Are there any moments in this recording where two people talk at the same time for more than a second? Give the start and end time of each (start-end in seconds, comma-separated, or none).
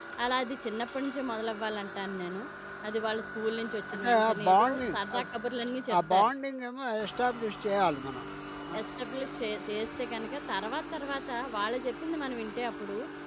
3.9-5.2